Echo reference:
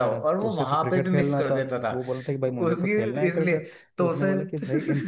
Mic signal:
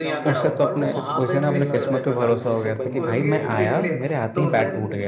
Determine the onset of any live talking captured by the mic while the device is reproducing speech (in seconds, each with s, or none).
0.3 s